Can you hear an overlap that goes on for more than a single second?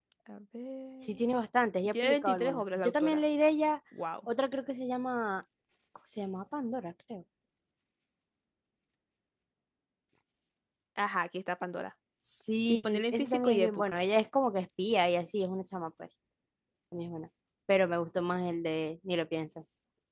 Yes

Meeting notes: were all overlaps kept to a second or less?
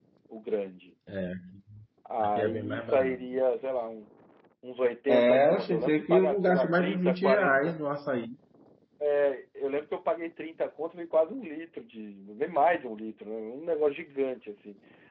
No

